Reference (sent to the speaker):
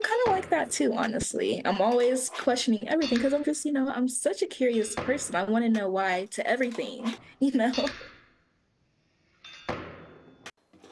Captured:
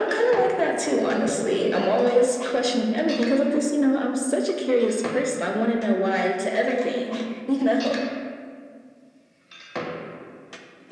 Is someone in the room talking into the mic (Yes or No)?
No